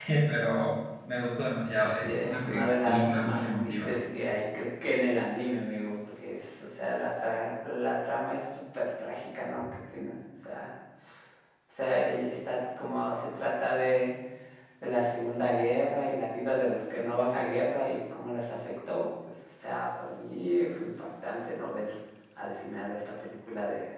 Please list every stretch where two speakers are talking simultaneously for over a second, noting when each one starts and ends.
1.7-4.0

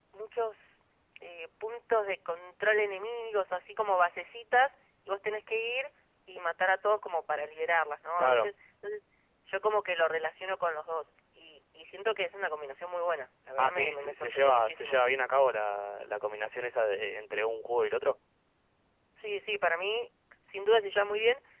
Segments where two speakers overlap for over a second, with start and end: 13.6-15.0

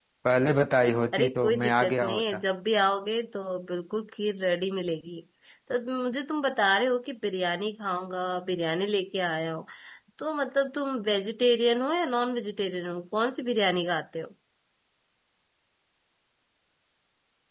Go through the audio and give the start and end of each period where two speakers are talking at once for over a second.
1.1-2.4

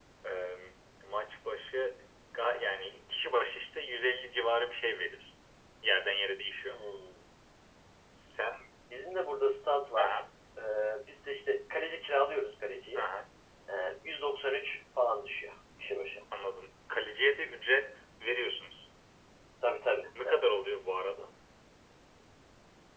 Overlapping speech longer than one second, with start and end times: none

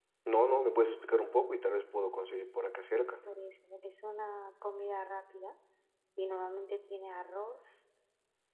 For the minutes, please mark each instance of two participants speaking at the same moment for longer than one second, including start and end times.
none

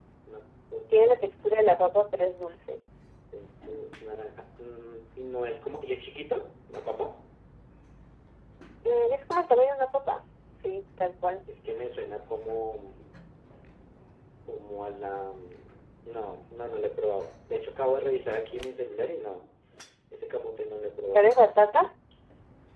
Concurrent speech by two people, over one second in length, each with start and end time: none

